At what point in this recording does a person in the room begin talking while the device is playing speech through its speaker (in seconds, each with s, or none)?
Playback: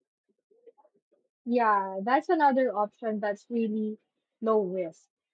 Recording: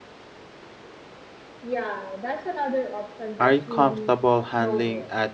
3.4 s